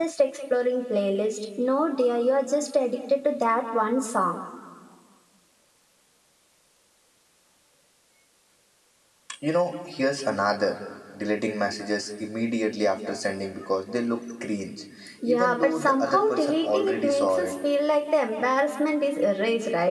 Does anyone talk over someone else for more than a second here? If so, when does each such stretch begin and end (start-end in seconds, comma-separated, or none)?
15.3-17.5